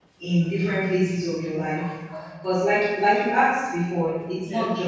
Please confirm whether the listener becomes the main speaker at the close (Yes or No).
No